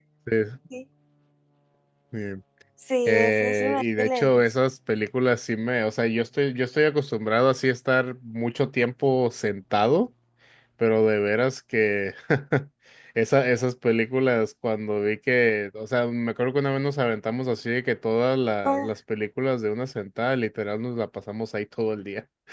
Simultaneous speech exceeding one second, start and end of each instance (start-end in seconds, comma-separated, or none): 3.1-4.4